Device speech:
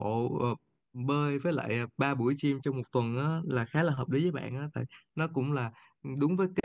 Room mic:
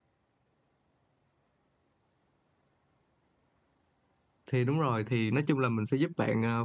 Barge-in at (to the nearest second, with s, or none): 4 s